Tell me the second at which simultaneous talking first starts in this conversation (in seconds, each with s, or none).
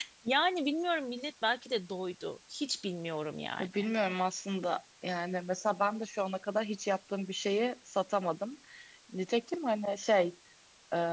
none